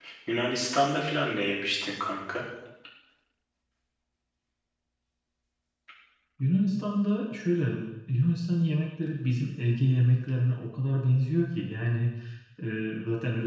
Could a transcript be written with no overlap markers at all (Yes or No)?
Yes